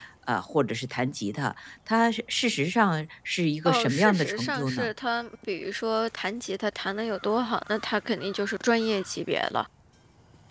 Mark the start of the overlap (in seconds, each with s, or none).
3.6 s